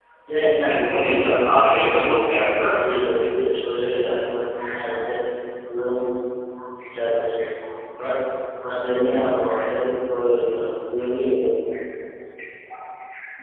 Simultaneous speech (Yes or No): Yes